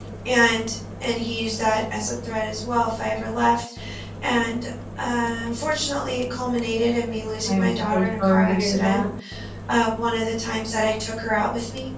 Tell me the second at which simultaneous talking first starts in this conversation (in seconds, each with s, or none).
7.5 s